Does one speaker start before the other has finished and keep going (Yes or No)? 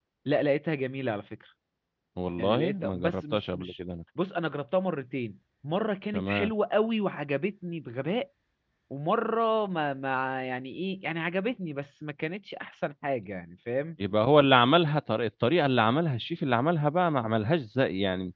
Yes